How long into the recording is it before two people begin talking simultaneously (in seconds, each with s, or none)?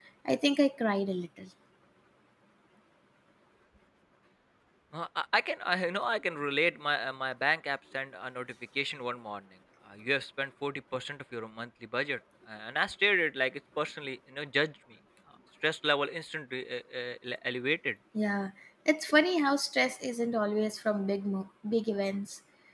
none